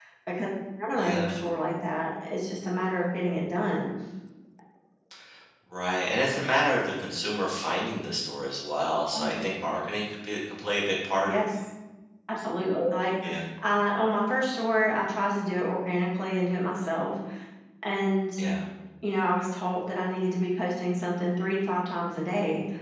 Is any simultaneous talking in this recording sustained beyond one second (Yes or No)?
No